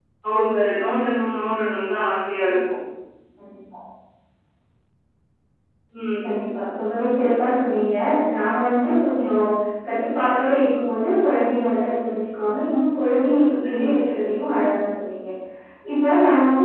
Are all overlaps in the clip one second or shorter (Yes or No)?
Yes